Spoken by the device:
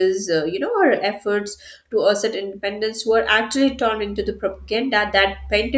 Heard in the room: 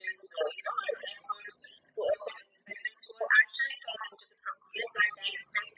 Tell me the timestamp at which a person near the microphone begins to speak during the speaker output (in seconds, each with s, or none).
none